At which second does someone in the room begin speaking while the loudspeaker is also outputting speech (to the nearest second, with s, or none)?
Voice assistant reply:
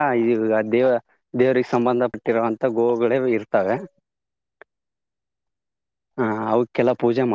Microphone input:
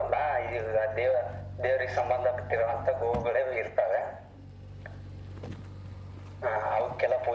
none